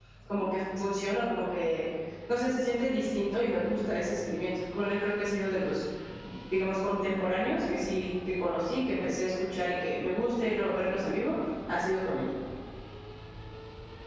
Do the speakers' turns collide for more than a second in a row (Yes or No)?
No